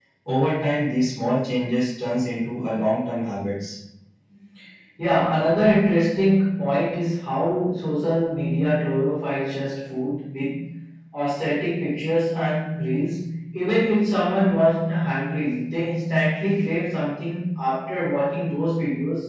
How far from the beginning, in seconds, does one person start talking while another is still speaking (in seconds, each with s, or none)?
none